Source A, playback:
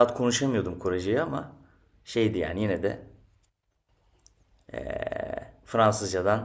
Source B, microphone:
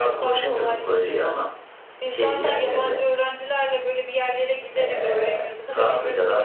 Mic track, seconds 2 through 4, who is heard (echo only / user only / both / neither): both